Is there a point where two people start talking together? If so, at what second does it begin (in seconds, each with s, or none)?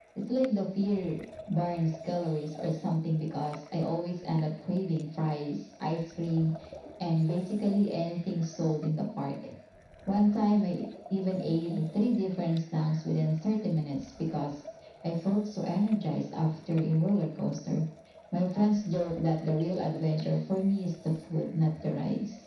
none